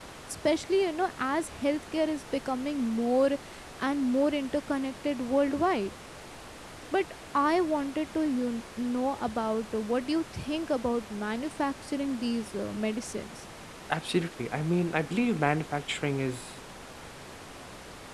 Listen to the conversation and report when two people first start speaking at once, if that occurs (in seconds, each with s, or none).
none